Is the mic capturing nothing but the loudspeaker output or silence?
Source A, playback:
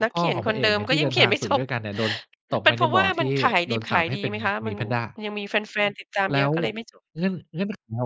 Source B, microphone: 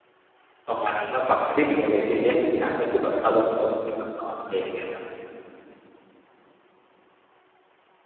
No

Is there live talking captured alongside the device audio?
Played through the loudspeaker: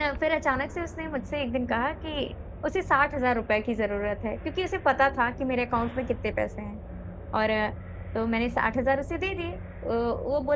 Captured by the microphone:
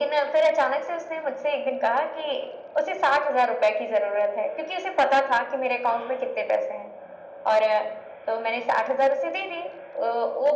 No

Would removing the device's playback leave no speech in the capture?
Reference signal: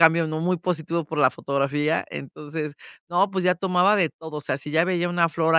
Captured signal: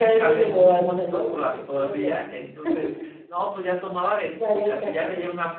No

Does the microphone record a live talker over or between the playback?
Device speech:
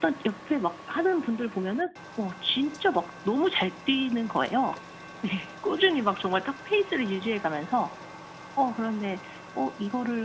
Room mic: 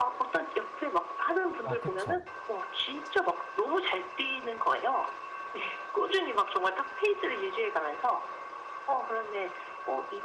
Yes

